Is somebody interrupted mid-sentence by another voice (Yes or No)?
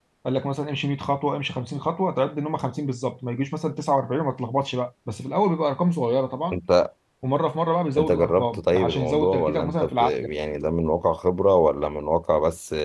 Yes